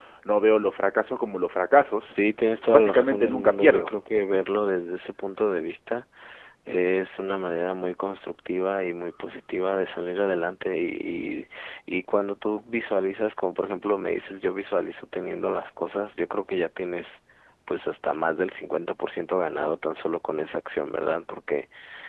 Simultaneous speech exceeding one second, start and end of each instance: 2.7-3.9

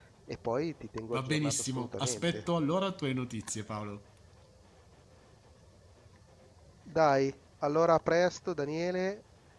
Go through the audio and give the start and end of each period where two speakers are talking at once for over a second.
1.1-2.5

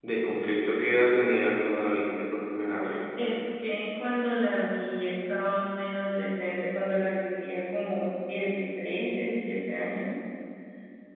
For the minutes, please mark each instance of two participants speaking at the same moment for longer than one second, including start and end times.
none

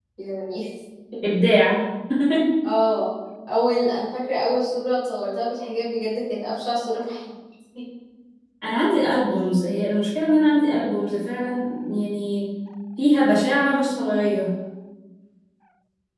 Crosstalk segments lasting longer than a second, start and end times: none

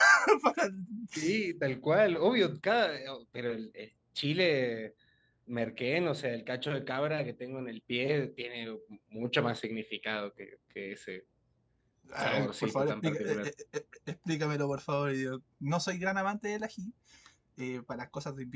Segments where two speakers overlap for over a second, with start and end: 12.2-13.5

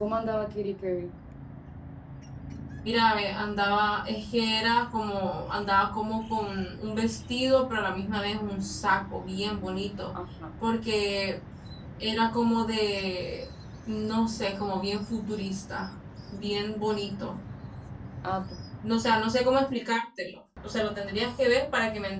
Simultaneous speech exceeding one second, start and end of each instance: none

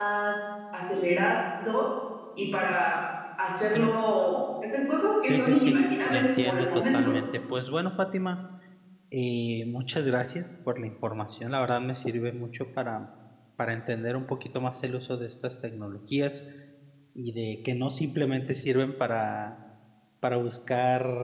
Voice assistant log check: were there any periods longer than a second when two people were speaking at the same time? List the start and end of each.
5.2-7.1

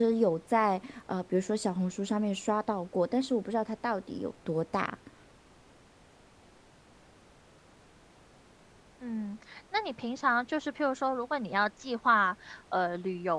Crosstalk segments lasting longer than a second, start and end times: none

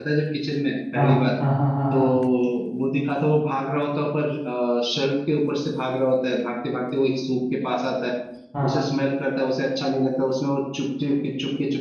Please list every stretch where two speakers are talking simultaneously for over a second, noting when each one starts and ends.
none

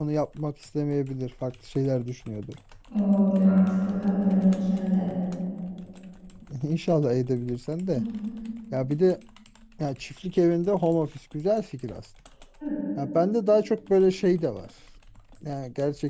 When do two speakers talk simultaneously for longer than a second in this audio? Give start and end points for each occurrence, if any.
none

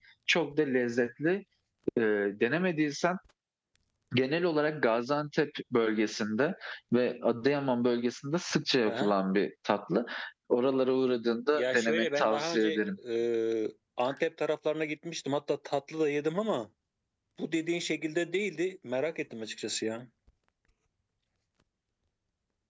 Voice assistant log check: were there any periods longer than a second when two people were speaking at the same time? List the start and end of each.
11.5-12.8

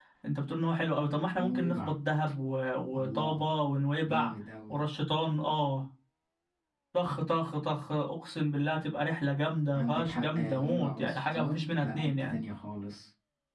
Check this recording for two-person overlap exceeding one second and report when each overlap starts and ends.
9.7-12.4

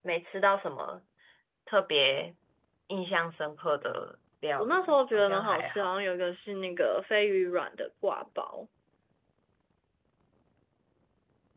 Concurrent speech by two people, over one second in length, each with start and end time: 4.6-5.9

